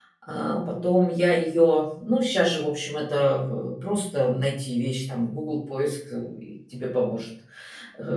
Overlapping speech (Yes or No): No